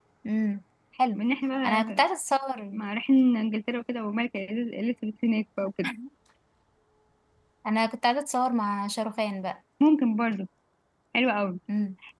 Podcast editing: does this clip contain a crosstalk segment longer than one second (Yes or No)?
No